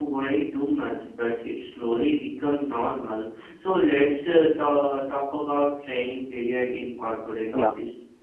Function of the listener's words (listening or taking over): taking over